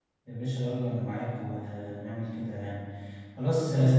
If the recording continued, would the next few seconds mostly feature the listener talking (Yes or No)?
No